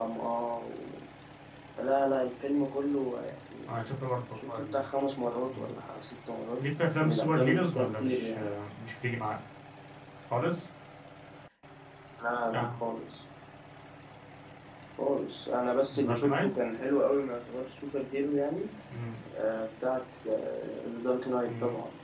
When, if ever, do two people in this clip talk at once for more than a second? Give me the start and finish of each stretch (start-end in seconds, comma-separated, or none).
7.0-8.5